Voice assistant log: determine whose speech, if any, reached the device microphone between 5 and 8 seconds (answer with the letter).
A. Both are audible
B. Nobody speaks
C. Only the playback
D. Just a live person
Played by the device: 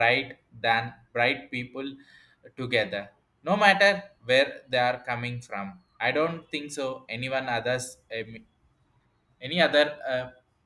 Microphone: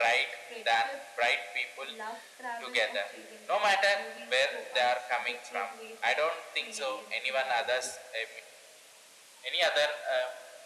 A